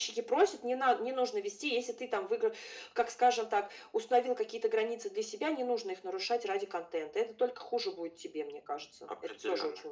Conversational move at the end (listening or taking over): taking over